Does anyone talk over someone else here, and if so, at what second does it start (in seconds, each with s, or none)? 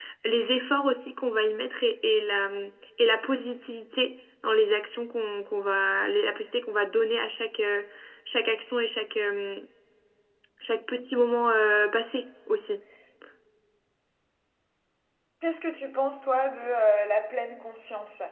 none